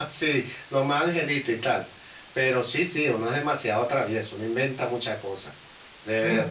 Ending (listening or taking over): taking over